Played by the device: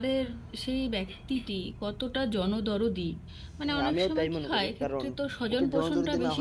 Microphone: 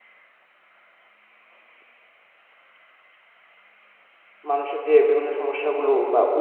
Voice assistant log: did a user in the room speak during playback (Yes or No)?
Yes